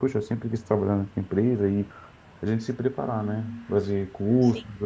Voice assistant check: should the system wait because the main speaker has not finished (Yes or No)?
Yes